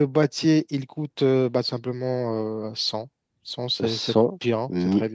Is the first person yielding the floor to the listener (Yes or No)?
Yes